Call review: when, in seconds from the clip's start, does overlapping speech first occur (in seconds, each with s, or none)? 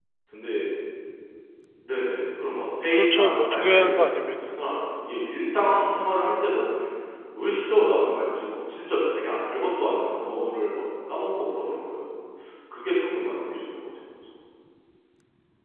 2.9 s